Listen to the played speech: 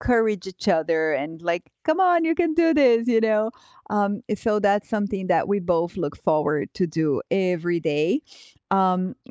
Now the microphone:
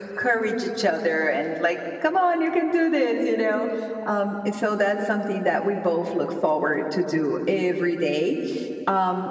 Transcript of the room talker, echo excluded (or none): none